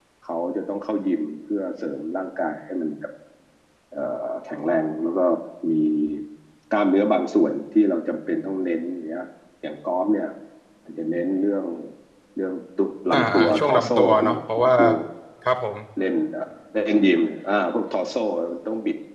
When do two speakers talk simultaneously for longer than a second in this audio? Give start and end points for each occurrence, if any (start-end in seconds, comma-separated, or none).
13.1-14.7